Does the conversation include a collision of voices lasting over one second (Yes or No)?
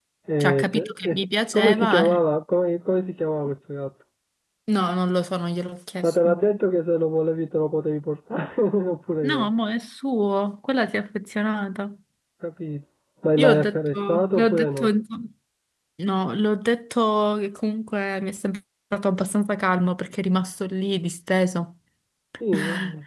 Yes